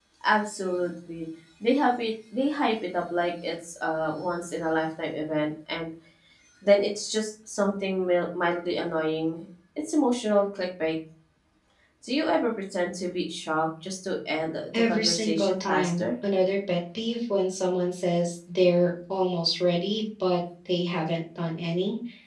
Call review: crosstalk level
present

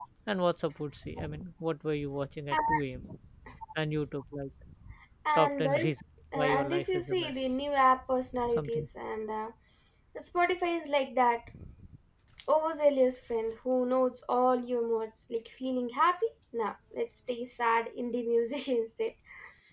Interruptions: present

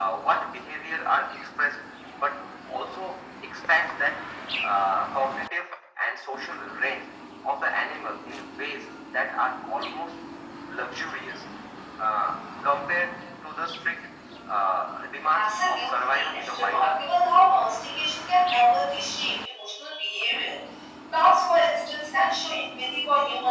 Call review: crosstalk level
present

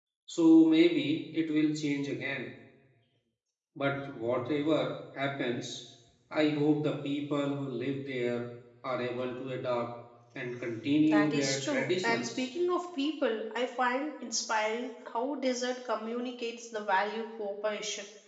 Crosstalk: present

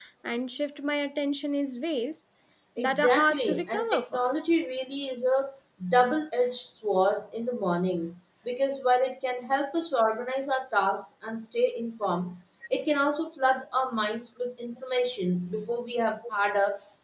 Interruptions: present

